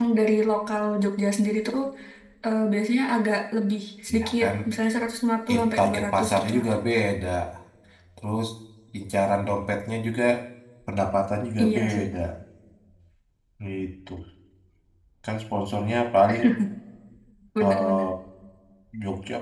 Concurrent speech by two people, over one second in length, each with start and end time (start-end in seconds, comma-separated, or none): 5.5-6.8